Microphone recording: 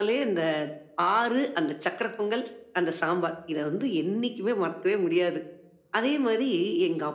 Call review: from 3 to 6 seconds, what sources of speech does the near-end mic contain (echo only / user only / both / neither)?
echo only